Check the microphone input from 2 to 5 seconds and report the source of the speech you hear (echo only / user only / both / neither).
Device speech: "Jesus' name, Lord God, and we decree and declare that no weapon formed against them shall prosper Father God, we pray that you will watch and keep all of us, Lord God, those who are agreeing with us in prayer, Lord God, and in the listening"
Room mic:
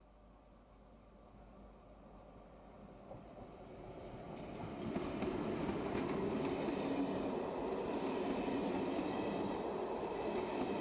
neither